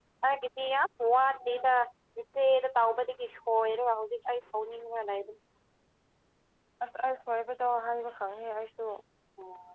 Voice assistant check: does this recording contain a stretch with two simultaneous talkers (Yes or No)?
No